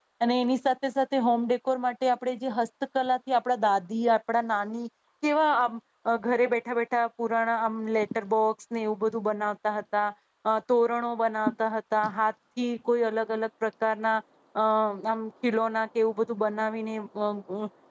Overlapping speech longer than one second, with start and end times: none

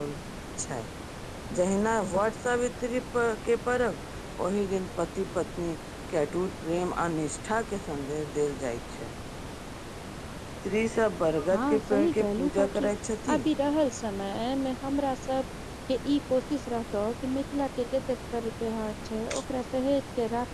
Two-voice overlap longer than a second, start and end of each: 11.5-12.9

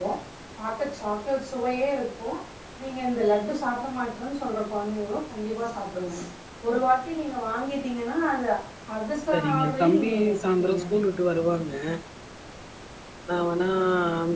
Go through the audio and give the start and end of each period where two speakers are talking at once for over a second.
9.3-10.8

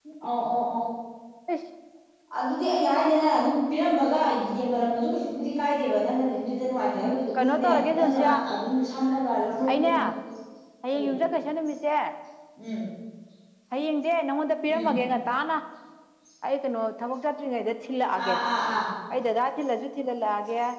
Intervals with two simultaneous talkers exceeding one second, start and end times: 7.0-8.3

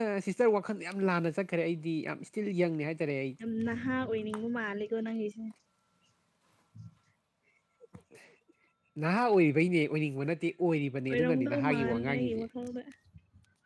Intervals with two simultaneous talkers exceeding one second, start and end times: 11.1-12.4

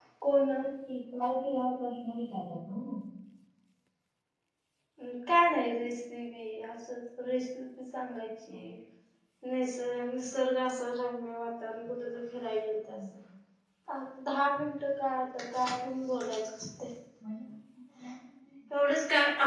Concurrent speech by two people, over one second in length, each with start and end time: none

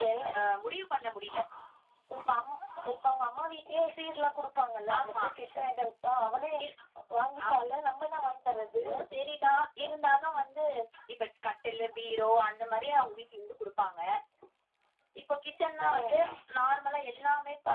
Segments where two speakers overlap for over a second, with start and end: none

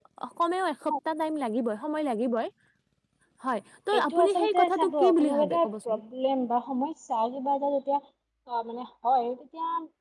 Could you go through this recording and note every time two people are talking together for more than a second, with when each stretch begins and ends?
3.9-6.0

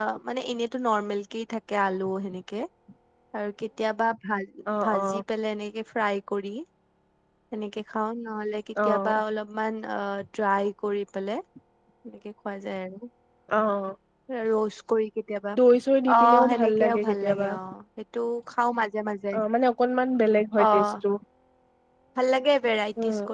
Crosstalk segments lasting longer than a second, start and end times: 16.2-17.4

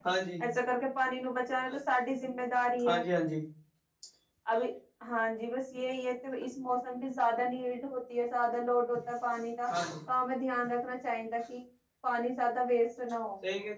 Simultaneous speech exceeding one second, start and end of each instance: none

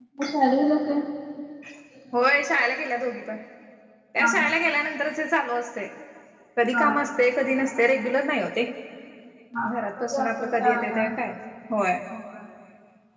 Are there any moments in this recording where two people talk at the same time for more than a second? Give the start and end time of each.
9.7-11.0

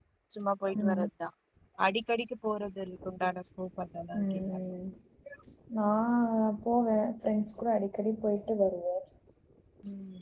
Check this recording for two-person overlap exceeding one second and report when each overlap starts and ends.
none

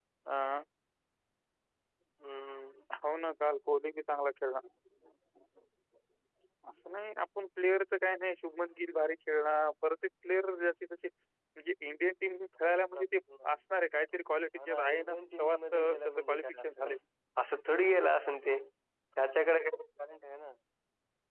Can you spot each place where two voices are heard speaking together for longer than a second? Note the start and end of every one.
14.6-16.9

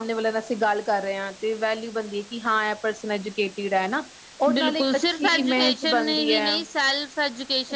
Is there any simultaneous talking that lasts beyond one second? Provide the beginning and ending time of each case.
4.5-6.5

